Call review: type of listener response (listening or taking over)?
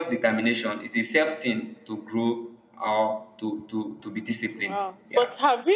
taking over